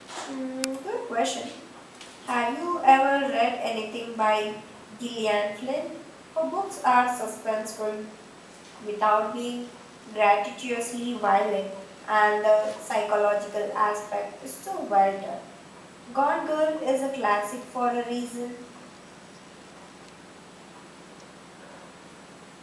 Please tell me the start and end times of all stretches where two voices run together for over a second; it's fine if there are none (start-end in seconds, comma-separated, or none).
none